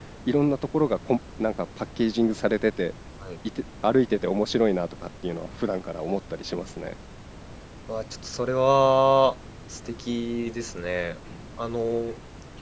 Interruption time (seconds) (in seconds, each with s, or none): none